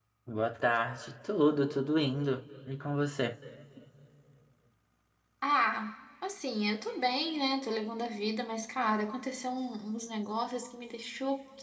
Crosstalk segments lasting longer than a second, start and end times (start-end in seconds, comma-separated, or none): none